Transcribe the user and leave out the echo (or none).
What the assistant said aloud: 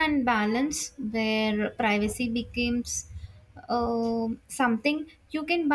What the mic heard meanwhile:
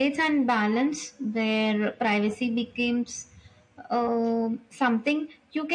none